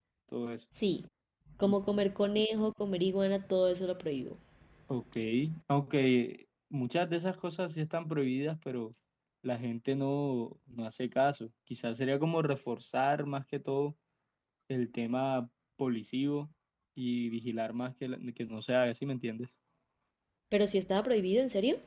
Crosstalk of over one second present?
No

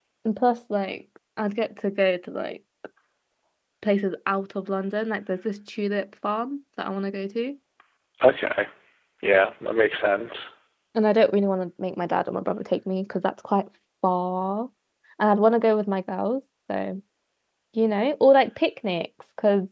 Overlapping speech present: No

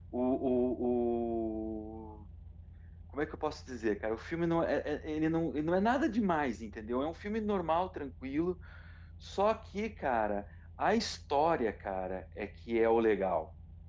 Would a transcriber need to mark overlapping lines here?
No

